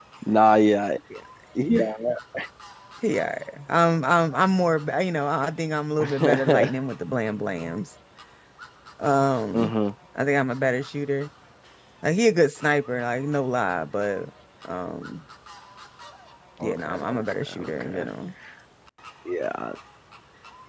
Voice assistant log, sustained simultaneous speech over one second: present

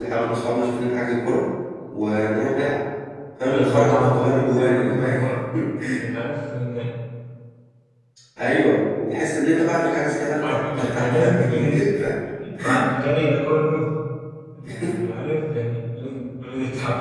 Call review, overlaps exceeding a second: present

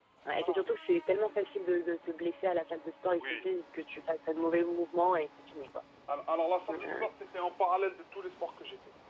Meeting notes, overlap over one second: none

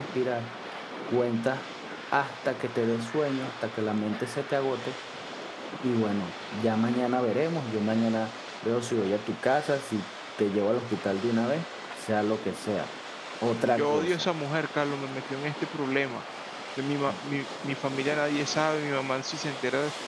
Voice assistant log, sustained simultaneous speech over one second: none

